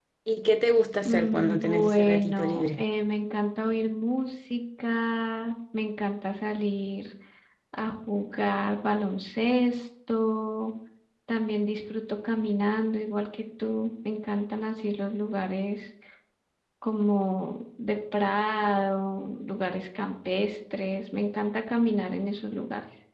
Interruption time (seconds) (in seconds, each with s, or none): 1.0 s